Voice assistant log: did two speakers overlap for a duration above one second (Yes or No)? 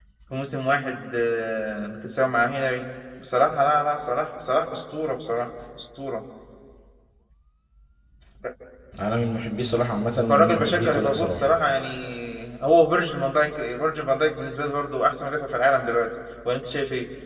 Yes